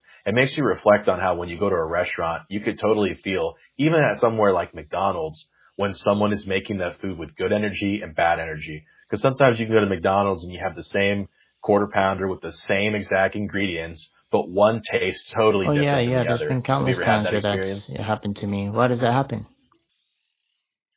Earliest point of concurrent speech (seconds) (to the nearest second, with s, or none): 16 s